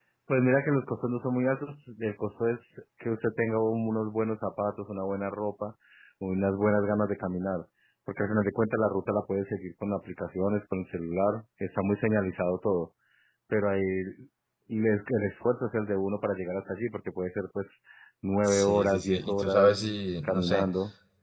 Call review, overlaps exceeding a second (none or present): present